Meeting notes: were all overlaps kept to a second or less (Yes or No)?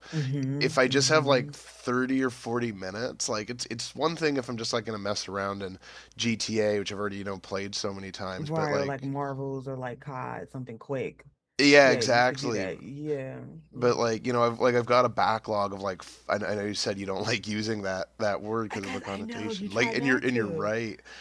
No